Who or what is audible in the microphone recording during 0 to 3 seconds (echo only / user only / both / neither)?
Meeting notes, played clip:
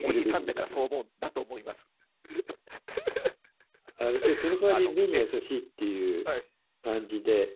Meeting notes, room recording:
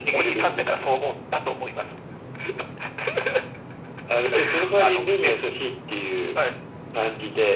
echo only